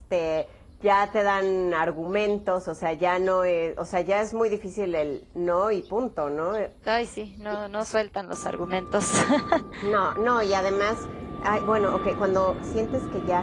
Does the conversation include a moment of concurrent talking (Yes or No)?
No